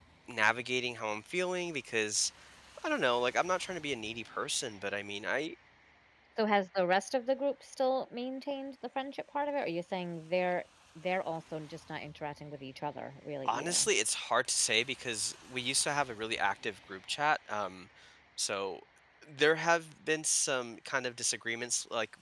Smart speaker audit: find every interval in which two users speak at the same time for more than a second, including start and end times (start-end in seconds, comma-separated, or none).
none